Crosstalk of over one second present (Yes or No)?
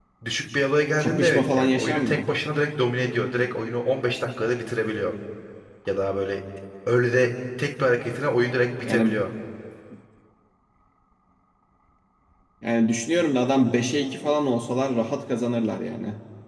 Yes